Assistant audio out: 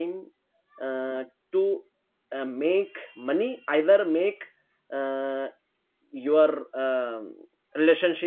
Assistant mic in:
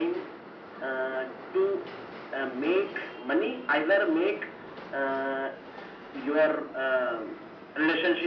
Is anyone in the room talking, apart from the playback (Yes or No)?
No